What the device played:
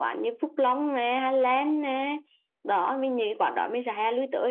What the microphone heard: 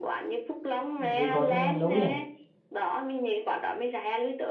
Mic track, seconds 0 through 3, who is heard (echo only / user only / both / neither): both